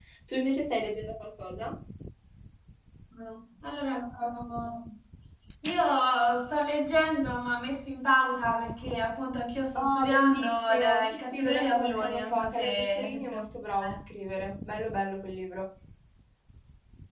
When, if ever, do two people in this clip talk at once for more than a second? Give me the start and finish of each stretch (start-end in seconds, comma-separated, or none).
9.8-13.4